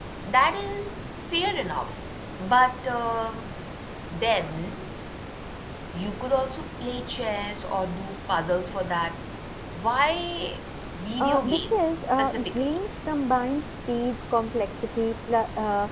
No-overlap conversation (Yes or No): No